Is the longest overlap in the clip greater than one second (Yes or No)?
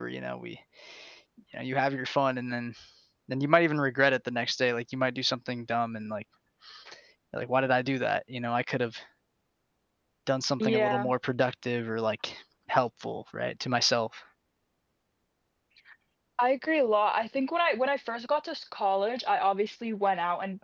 No